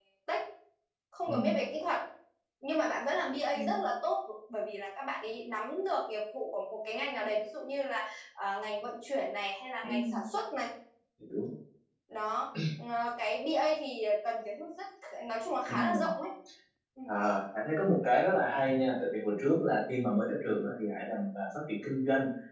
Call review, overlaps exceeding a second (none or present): none